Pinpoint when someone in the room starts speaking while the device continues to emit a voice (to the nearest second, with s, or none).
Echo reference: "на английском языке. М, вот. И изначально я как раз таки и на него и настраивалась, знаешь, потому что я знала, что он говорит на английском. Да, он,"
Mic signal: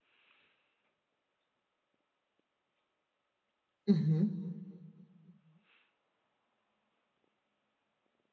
4 s